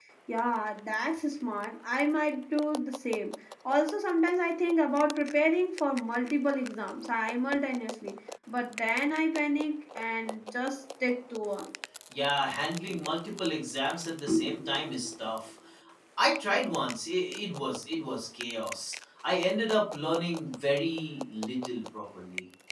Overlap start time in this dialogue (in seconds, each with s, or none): none